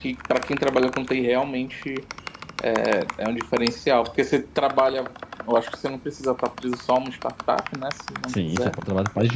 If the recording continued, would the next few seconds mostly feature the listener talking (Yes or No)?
Yes